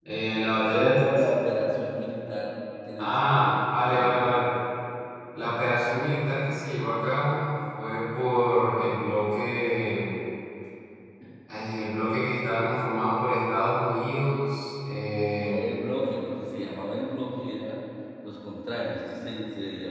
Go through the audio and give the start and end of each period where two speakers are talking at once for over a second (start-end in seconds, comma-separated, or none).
3.0-4.4